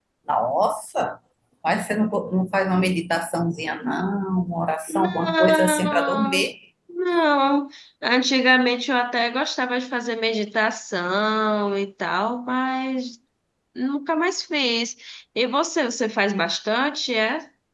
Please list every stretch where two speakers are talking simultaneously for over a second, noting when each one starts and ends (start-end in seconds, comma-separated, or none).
4.9-6.5